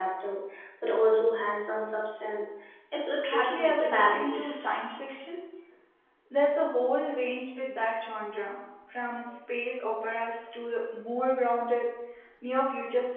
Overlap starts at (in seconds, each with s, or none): 3.3 s